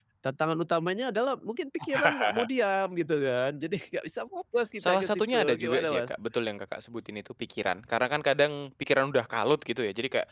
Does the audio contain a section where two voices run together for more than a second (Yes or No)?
Yes